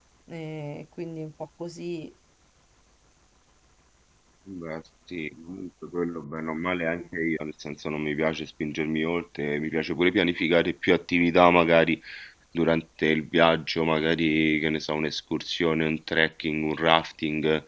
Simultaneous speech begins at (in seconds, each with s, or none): none